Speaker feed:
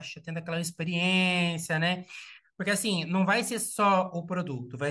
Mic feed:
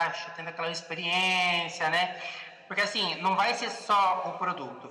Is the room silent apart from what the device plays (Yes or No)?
Yes